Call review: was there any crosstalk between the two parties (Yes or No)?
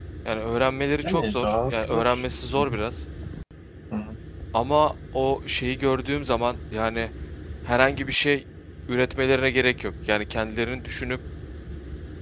Yes